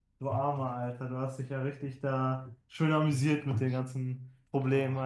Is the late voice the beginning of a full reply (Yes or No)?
Yes